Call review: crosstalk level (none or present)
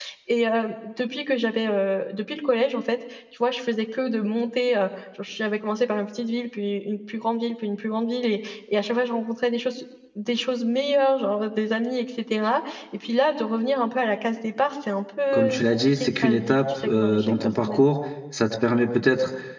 present